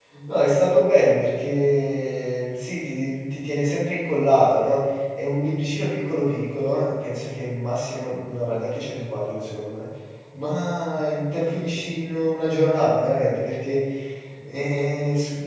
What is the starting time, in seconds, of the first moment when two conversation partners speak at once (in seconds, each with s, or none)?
none